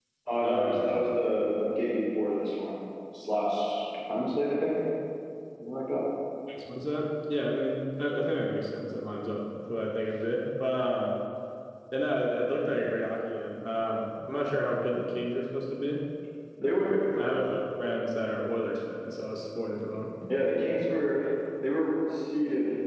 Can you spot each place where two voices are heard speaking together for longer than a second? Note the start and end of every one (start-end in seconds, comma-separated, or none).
none